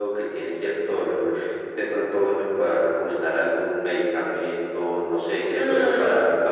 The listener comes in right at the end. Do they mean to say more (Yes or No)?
Yes